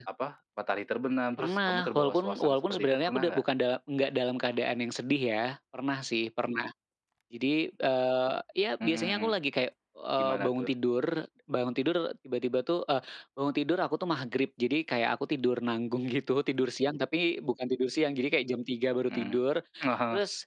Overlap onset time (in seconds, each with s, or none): 1.4 s